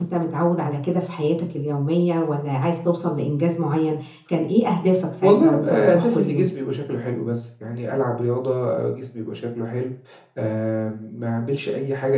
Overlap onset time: 5.2 s

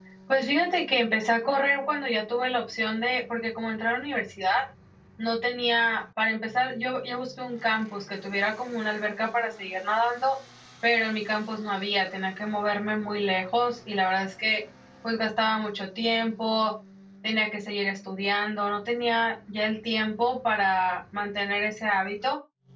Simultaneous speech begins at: none

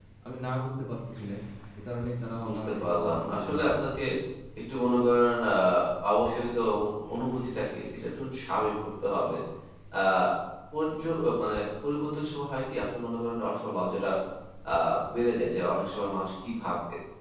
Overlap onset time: 2.4 s

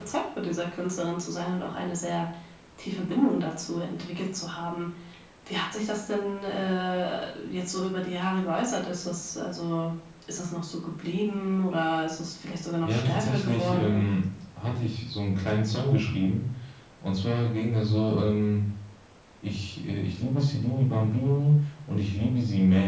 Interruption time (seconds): 12.8 s

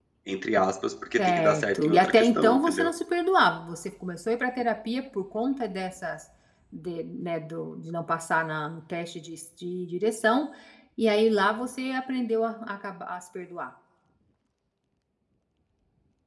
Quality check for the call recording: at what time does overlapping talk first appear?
1.2 s

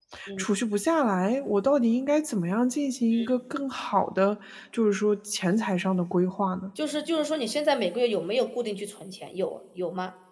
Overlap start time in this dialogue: none

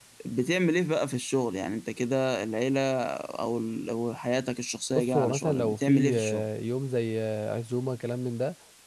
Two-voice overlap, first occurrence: 5.0 s

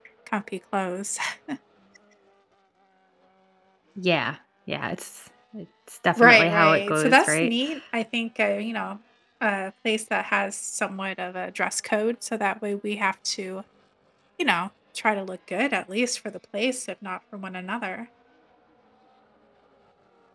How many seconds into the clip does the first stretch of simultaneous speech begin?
6.2 s

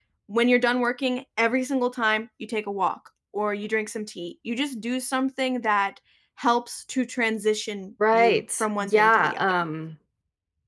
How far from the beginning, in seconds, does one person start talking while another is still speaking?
8.0 s

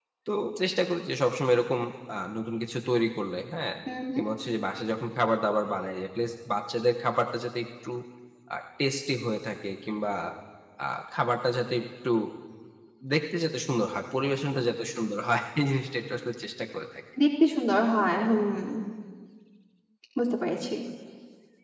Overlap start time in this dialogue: none

